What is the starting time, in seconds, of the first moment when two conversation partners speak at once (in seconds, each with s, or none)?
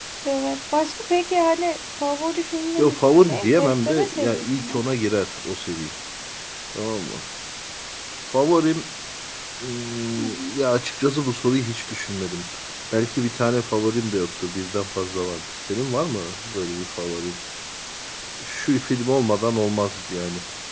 2.8 s